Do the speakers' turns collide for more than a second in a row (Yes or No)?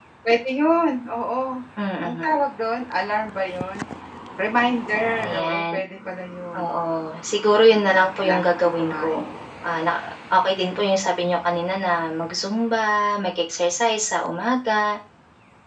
Yes